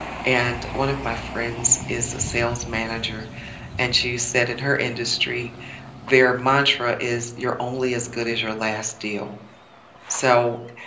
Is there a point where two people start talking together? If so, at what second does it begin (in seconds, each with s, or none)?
none